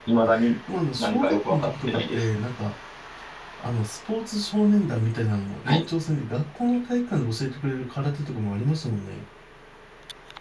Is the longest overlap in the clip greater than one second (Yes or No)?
Yes